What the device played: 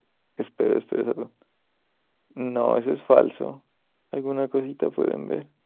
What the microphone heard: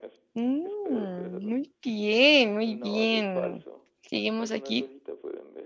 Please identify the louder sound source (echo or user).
user